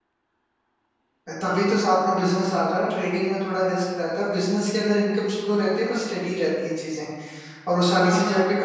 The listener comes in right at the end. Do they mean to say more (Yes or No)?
No